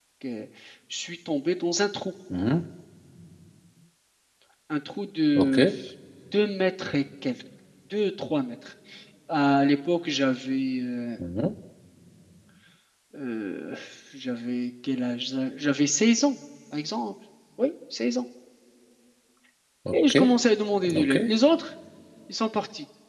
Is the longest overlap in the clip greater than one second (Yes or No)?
No